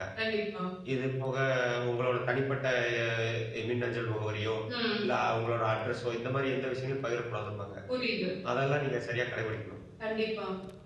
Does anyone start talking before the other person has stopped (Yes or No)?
No